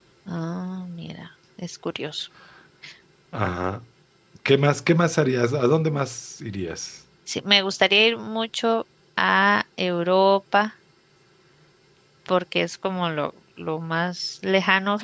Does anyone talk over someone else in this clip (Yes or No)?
No